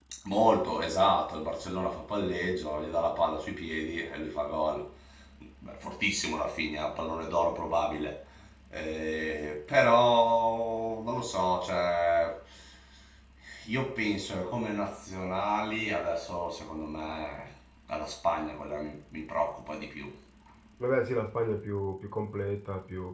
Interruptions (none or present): none